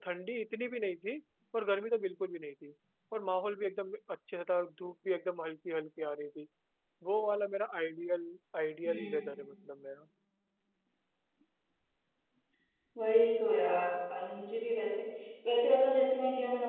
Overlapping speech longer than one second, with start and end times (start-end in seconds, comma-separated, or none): none